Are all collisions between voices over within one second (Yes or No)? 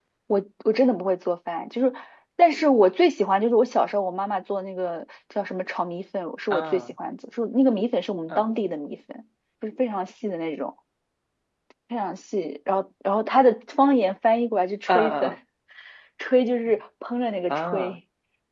Yes